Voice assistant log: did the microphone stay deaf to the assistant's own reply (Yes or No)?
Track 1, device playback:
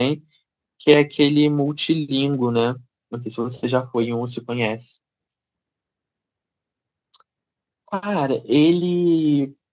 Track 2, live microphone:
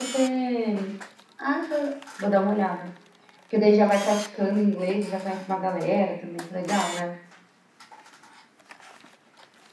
Yes